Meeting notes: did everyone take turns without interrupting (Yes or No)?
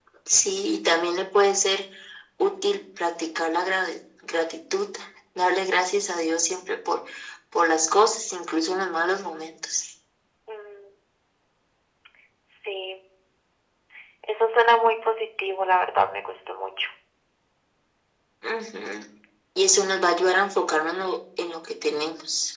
Yes